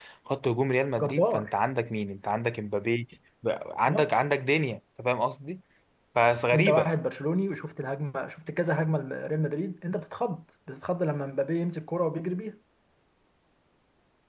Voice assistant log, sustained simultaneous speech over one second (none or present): none